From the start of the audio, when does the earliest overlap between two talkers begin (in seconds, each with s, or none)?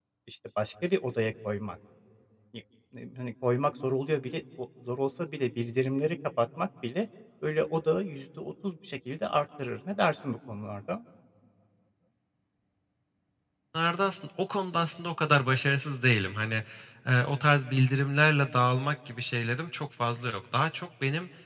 none